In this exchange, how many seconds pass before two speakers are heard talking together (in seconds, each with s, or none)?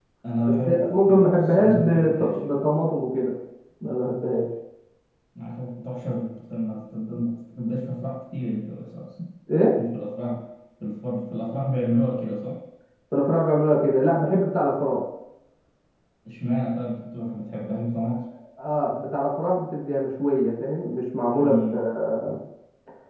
0.7 s